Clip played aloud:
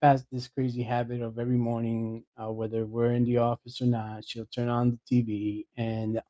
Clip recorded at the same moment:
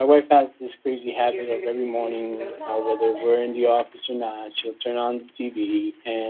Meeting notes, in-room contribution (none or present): present